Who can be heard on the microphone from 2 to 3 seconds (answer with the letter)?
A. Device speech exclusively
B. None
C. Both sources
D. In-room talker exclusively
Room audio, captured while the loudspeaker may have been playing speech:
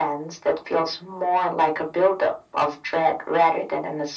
A